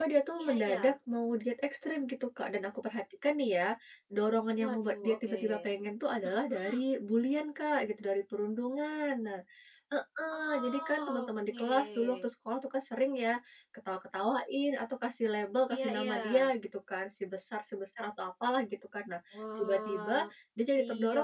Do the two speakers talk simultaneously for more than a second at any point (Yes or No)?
Yes